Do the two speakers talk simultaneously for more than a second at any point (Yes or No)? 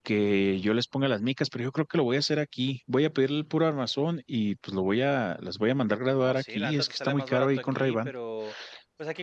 Yes